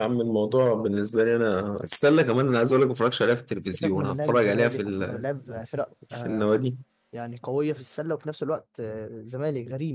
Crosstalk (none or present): present